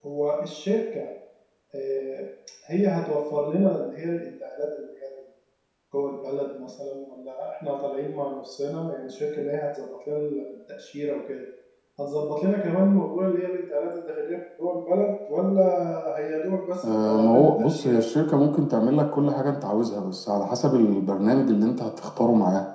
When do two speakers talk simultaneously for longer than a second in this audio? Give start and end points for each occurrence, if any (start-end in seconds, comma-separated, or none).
16.8-18.0